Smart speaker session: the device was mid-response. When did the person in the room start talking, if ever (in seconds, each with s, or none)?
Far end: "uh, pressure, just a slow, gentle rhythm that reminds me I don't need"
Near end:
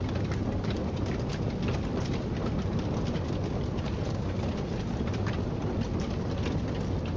none